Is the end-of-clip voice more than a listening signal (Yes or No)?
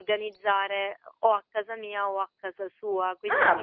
No